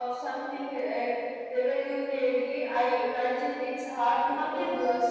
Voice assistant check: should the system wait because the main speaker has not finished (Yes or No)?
Yes